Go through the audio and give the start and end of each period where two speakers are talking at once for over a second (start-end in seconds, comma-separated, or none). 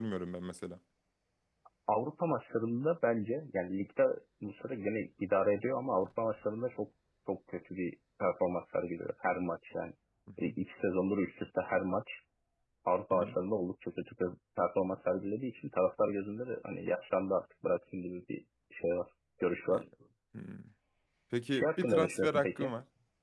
21.5-22.7